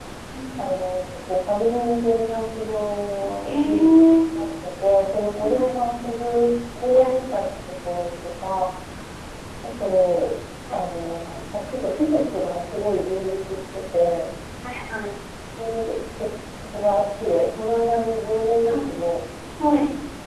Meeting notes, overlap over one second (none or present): none